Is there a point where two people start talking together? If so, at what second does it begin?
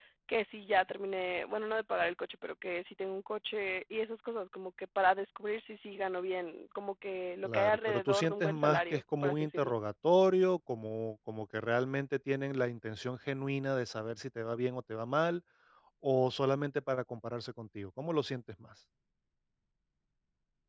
7.4 s

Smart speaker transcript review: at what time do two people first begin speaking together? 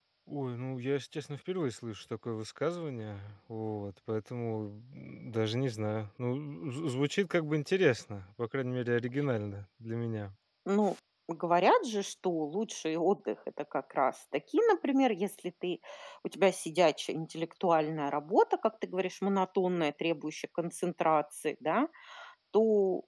none

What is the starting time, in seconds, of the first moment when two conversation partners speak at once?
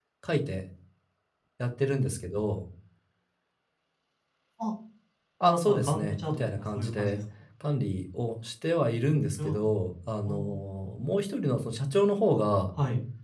5.4 s

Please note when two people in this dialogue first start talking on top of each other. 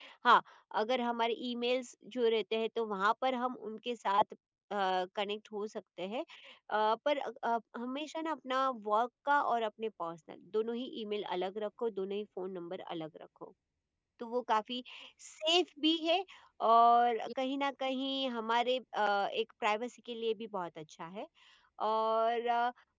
none

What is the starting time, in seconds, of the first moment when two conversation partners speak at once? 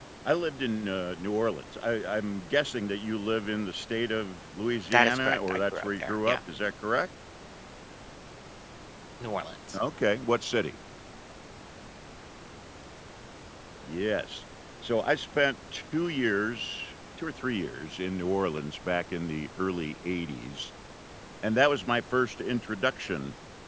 4.9 s

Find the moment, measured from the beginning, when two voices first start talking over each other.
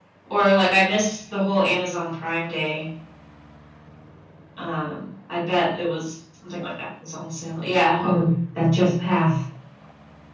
none

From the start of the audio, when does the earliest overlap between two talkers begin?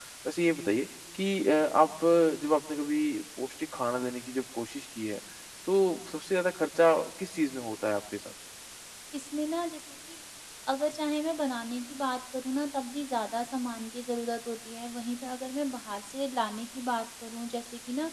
none

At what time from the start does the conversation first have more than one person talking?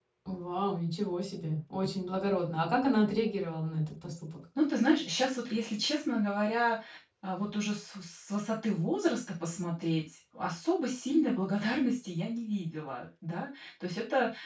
none

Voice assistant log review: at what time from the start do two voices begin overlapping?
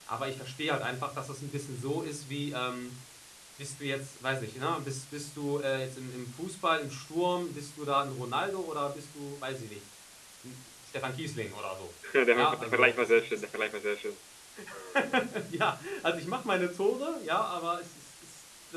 12.3 s

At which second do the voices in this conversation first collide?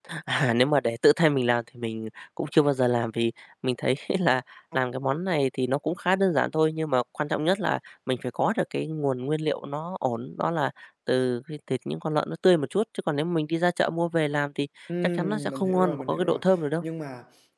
15.2 s

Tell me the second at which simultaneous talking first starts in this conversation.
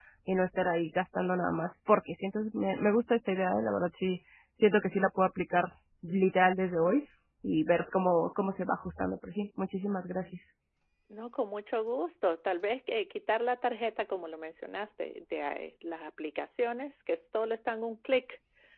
none

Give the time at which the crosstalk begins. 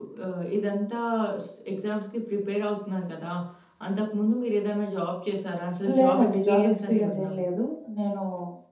5.8 s

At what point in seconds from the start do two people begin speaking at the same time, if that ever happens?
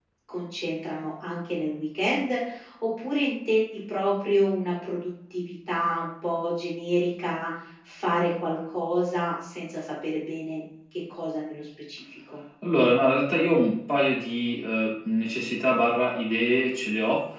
none

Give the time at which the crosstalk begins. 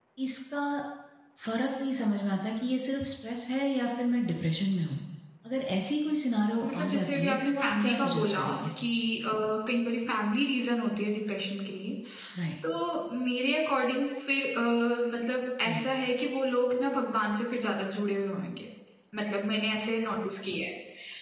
6.6 s

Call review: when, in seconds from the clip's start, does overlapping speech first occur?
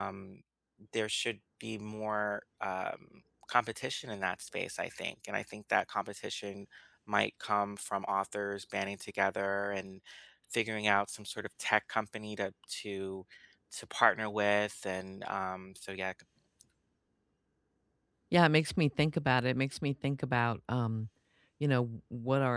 none

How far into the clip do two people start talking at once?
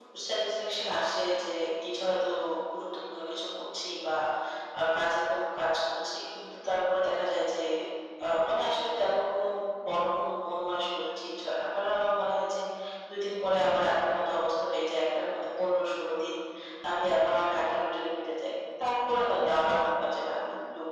none

